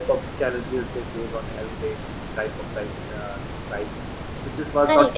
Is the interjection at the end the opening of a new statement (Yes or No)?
Yes